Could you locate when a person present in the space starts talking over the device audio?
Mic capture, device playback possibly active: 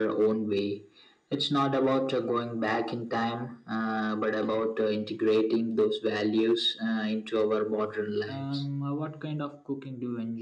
8.3 s

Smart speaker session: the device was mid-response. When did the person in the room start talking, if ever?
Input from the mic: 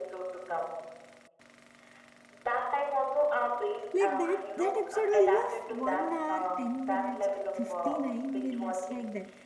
3.9 s

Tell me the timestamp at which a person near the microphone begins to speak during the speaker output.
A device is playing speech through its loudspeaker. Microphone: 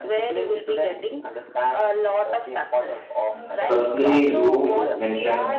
3.4 s

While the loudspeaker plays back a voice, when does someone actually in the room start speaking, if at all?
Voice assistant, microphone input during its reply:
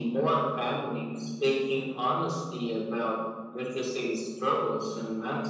none

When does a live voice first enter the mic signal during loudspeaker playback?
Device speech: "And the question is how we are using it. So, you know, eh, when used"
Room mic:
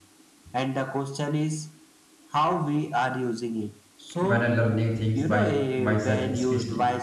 4.2 s

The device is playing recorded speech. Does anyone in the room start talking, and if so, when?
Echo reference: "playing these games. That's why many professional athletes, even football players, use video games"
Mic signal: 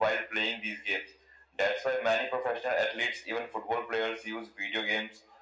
none

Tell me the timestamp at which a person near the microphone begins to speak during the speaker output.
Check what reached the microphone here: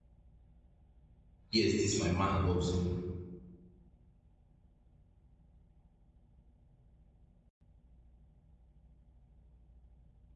1.5 s

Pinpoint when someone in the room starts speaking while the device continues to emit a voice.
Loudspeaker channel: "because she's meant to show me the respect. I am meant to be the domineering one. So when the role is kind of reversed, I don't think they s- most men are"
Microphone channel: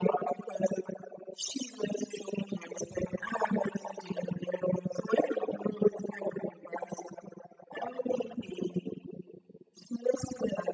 none

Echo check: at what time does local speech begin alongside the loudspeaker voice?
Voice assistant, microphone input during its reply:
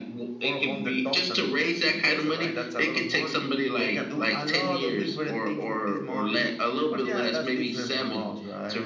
none

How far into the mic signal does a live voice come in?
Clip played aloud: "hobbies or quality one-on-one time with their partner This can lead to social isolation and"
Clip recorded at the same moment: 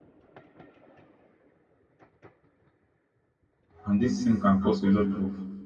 3.8 s

